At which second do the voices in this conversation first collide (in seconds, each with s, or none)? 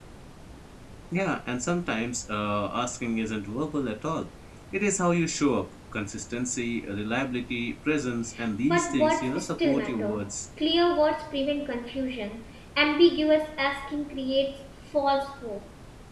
8.6 s